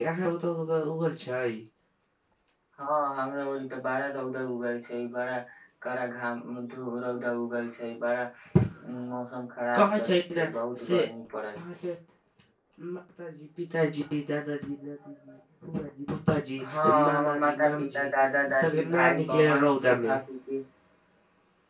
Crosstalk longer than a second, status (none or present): present